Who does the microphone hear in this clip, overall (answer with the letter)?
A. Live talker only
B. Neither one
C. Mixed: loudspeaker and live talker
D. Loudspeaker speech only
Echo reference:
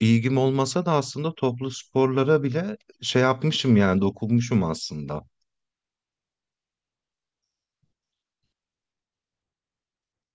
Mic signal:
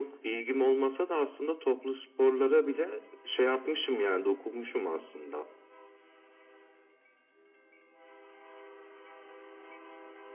D